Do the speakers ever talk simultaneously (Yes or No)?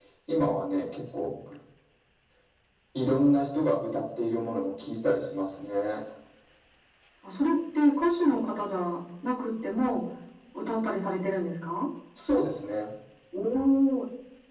No